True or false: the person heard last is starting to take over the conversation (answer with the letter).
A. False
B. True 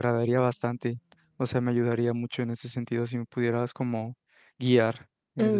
B